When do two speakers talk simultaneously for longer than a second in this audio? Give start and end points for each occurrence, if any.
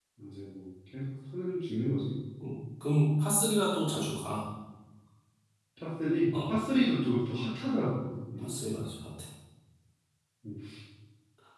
none

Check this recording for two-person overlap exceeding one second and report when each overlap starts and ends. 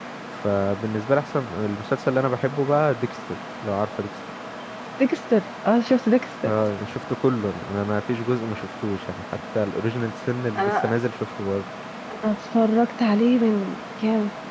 none

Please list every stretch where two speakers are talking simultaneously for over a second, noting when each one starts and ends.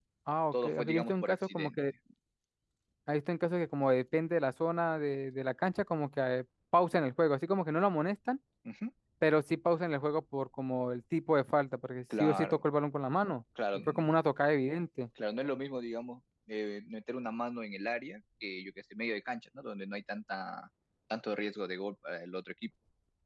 0.5-1.8

